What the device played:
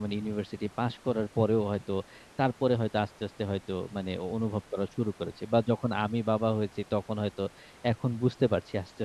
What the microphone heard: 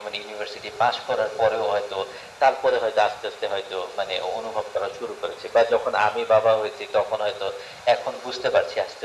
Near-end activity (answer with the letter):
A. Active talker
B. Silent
B